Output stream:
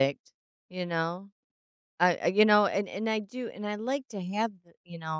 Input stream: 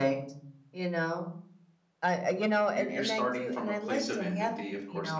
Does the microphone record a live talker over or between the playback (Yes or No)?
Yes